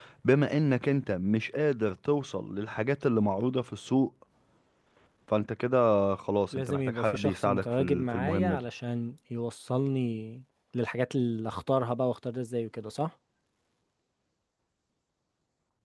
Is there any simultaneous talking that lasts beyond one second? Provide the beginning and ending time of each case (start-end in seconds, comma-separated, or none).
6.5-8.7